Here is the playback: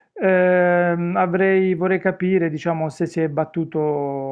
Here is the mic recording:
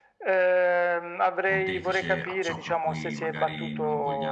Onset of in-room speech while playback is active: 1 s

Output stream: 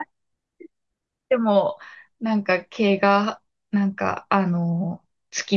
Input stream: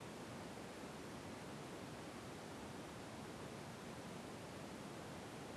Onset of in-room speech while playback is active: none

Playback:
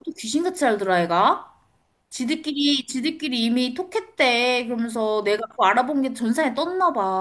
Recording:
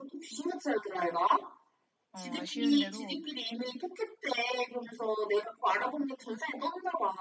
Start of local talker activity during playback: 2 s

